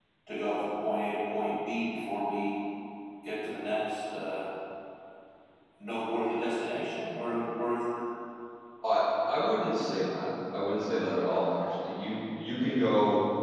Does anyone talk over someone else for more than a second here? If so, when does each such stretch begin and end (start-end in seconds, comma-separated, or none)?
none